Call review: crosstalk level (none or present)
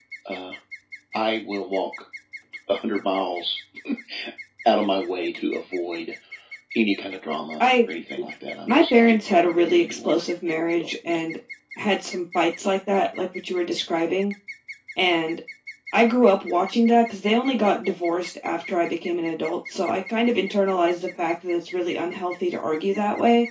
present